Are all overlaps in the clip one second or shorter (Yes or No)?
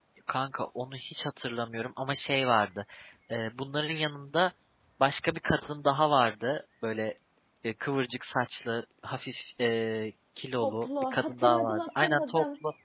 No